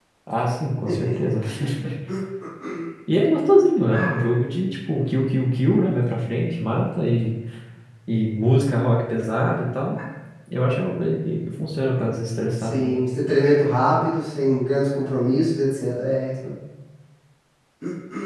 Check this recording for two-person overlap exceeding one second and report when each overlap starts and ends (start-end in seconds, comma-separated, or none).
none